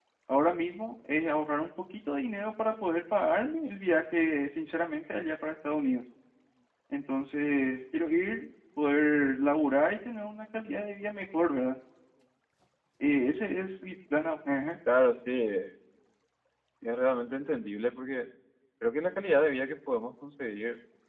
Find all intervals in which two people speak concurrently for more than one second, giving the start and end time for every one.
none

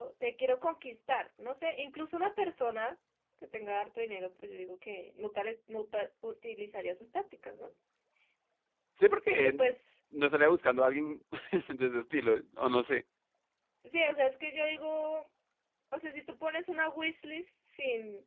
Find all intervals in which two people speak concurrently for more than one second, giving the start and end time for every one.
none

